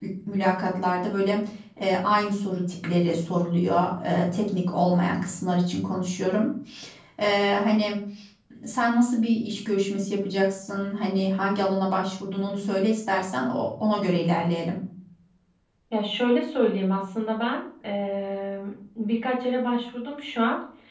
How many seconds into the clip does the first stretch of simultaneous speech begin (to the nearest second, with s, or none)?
none